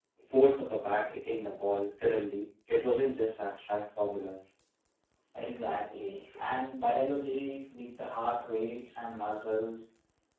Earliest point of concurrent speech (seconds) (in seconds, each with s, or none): none